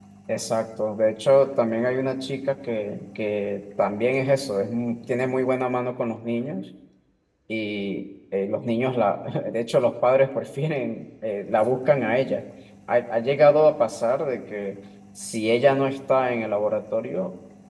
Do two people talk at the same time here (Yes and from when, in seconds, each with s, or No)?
No